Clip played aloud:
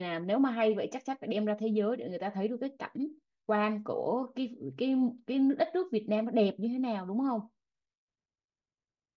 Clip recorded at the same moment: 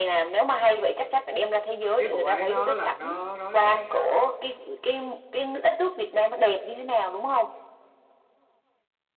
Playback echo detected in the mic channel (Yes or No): Yes